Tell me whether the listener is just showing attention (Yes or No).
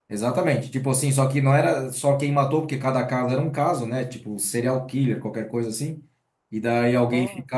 Yes